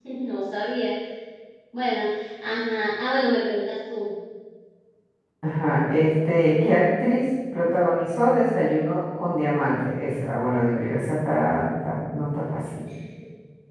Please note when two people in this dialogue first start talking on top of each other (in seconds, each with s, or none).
none